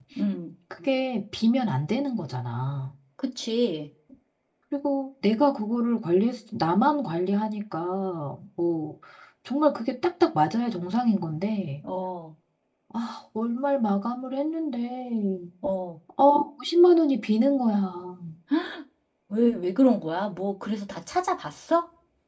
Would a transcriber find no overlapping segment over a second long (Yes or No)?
Yes